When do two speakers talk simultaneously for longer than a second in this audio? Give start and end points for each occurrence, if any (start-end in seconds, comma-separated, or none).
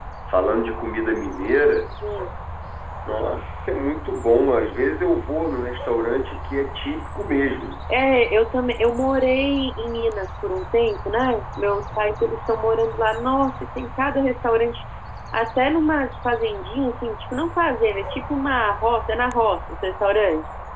none